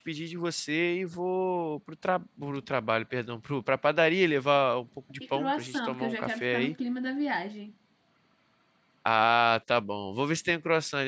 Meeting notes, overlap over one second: present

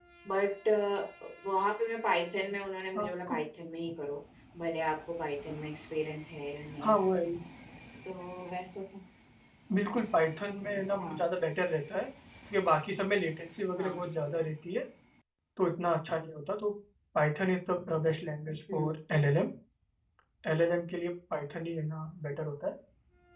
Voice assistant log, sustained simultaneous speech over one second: none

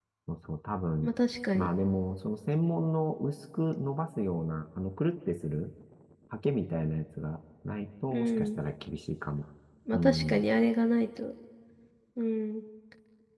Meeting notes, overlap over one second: none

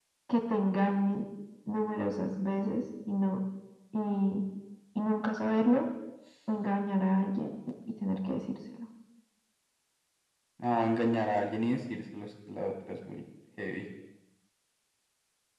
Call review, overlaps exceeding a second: none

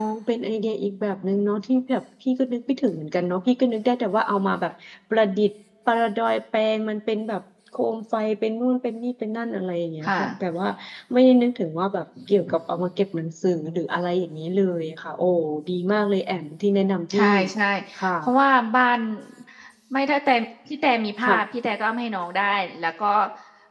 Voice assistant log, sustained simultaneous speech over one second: none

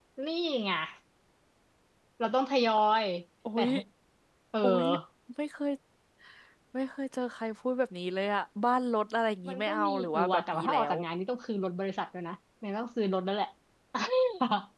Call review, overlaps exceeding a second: present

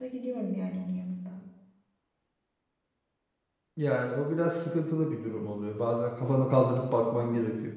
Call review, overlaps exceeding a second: none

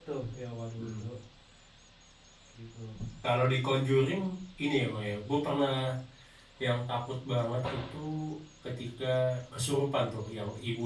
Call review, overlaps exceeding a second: none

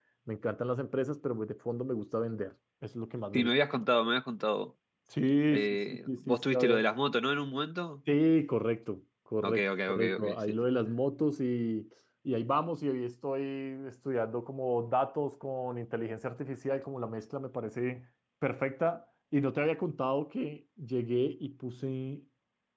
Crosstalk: present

